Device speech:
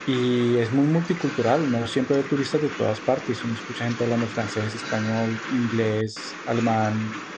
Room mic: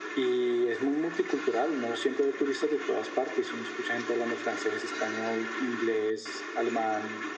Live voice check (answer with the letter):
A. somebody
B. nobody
B